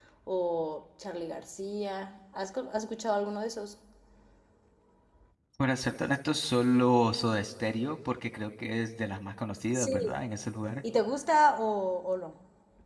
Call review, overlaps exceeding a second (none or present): none